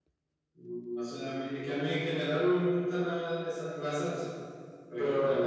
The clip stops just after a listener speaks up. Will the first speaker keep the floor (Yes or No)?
Yes